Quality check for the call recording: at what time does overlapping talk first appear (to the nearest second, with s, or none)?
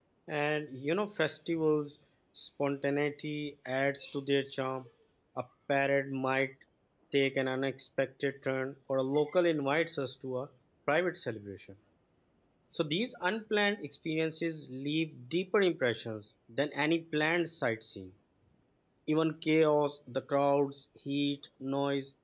none